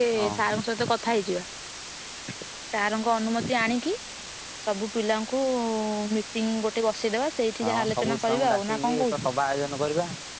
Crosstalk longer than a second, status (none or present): present